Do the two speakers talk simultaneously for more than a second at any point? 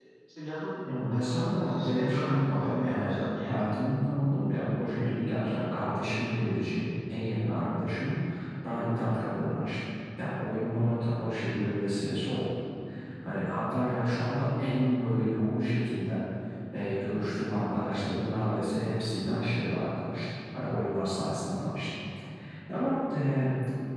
Yes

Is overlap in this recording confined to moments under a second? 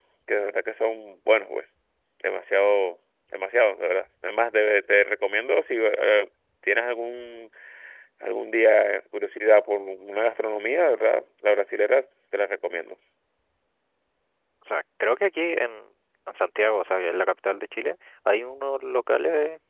Yes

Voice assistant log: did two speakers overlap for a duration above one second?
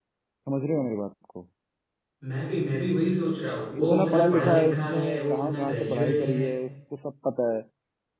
Yes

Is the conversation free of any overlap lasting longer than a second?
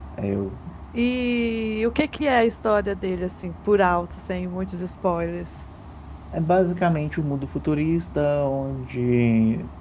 Yes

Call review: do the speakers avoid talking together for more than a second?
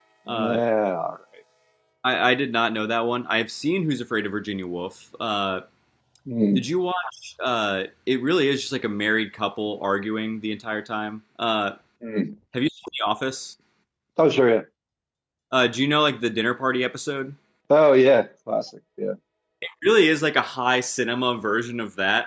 Yes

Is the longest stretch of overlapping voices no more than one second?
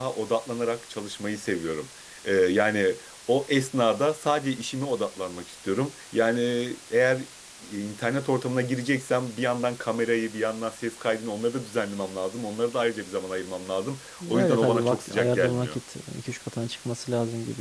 No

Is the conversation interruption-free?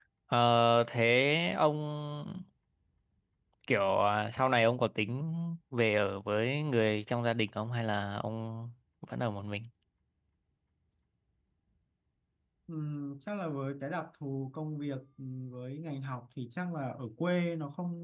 Yes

